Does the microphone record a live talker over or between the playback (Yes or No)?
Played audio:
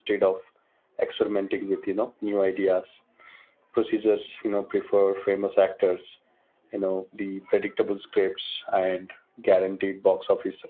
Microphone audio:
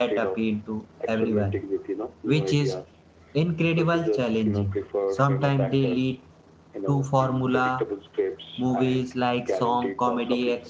Yes